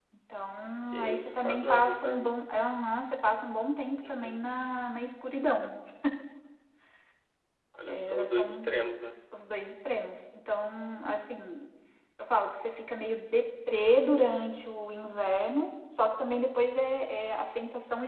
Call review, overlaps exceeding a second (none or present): present